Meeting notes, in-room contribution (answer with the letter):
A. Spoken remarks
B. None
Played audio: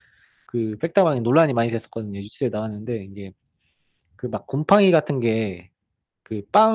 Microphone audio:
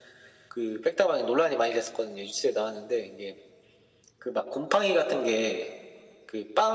B